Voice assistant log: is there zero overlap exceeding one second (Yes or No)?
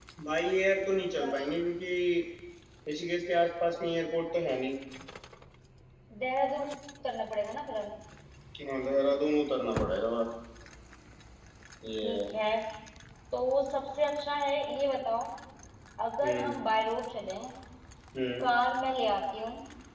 Yes